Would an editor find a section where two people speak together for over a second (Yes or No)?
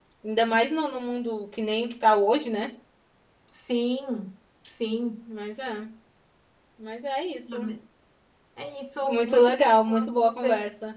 Yes